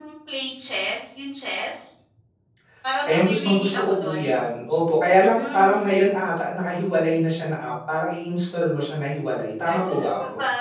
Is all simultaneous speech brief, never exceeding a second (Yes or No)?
No